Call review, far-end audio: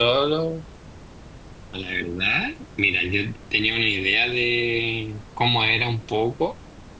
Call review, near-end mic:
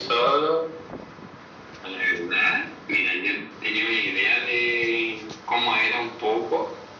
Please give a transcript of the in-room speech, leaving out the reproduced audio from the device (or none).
none